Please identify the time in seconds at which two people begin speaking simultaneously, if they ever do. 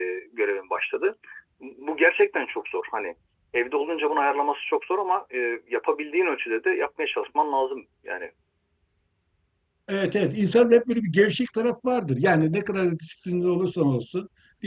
none

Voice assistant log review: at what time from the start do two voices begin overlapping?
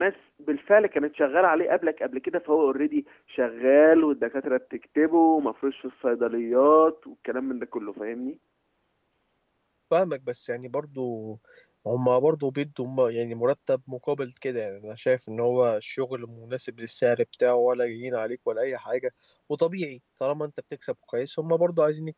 none

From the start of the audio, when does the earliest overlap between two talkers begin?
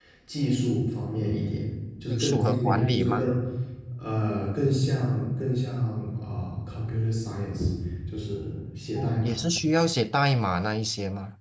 2.1 s

